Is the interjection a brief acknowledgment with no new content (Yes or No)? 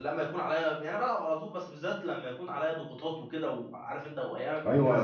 No